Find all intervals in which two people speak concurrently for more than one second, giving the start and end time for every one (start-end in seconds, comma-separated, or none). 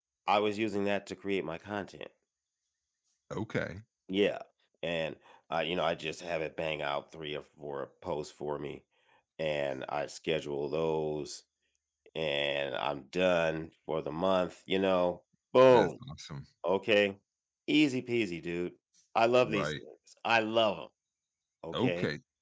none